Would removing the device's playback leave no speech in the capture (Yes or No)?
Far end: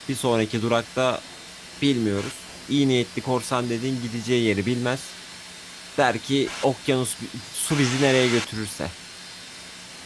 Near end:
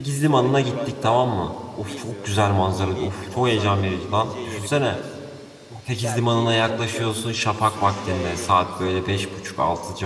No